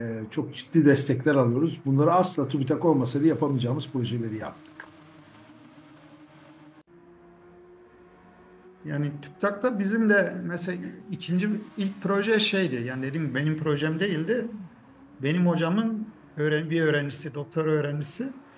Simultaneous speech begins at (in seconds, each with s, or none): none